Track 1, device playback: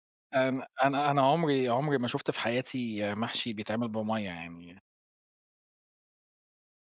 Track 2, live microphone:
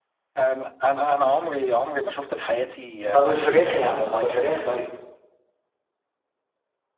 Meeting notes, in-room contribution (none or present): present